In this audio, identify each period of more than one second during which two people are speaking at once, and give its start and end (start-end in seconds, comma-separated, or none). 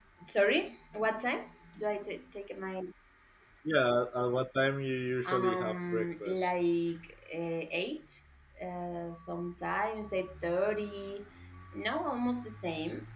5.2-6.5